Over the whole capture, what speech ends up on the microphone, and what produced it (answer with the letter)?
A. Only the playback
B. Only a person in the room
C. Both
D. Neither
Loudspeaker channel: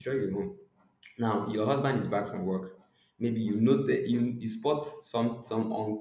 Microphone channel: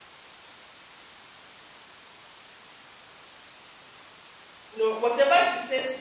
B